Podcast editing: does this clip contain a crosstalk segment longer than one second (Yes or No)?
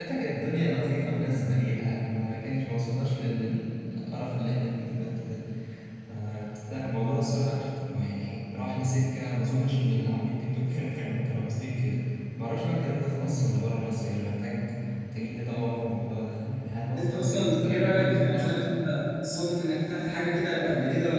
Yes